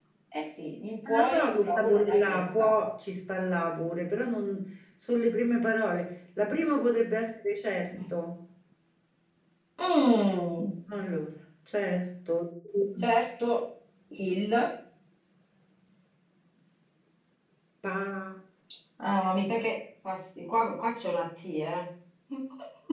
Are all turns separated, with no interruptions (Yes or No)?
No